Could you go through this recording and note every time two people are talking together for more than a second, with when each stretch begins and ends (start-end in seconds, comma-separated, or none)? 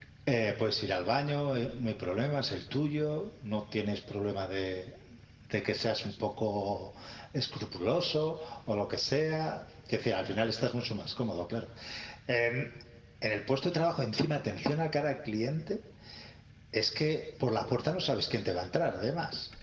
none